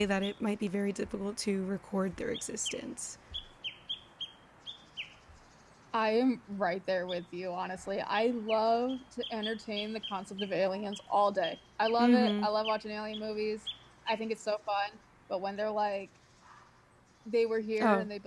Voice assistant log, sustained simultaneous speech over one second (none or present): none